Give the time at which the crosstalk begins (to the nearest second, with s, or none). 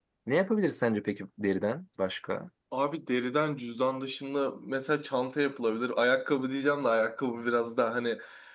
none